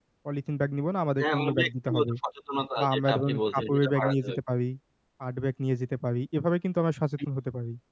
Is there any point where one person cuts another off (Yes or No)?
Yes